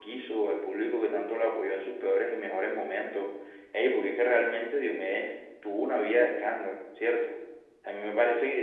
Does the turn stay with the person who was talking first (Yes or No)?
Yes